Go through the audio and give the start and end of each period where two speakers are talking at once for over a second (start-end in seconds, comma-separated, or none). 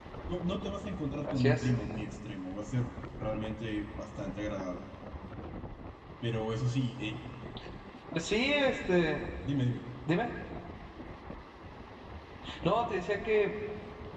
none